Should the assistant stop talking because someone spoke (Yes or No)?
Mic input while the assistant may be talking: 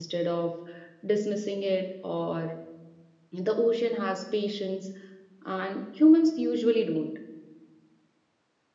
Yes